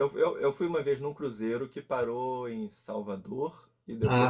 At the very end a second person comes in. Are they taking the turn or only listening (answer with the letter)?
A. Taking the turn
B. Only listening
B